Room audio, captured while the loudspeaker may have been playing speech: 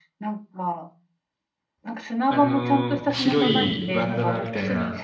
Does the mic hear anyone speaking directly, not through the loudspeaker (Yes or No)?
Yes